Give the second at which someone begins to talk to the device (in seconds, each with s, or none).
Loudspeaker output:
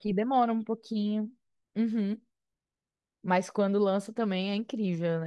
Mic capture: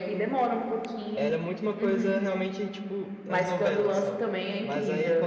1.1 s